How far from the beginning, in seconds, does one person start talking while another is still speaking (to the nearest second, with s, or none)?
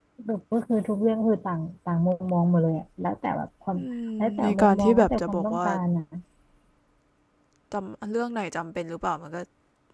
4 s